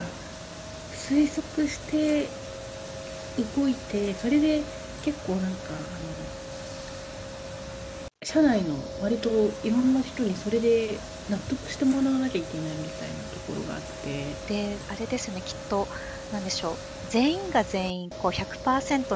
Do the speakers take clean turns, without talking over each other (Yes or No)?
Yes